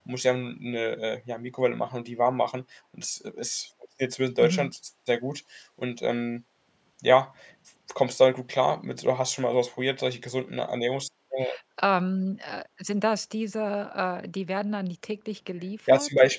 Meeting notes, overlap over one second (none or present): none